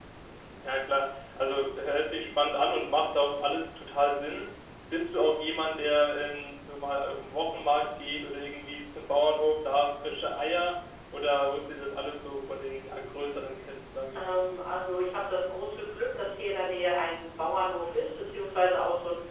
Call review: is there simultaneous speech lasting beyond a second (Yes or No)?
No